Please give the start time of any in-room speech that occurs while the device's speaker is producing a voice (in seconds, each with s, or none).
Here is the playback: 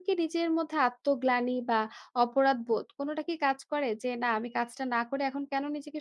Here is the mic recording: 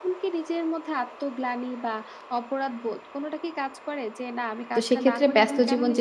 4.7 s